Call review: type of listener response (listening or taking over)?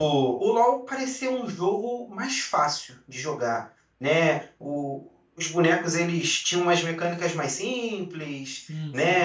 listening